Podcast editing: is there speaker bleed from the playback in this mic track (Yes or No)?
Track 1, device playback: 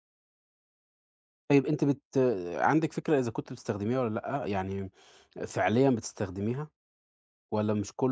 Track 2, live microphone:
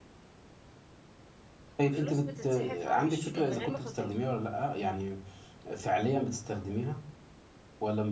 Yes